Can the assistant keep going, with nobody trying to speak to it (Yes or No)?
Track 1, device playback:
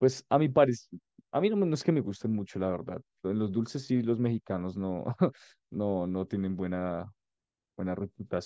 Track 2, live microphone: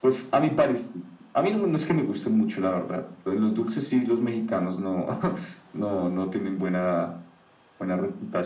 Yes